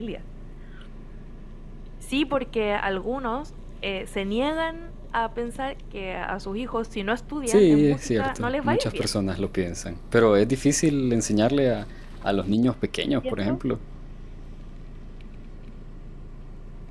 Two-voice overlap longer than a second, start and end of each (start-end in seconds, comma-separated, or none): 7.5-9.2